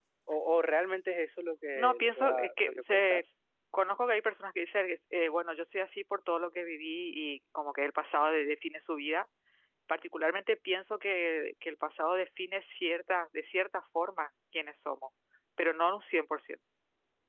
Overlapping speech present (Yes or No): Yes